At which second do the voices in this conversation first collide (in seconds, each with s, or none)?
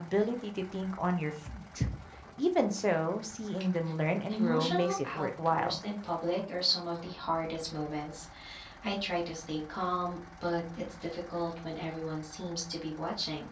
4.3 s